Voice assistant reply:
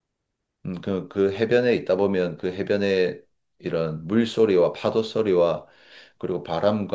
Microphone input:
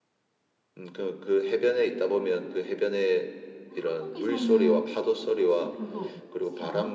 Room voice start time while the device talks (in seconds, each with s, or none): 3.7 s